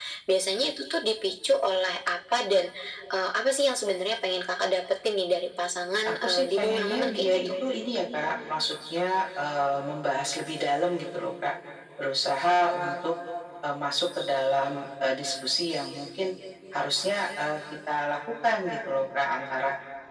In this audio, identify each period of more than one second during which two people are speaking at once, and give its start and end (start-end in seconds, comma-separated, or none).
6.0-7.5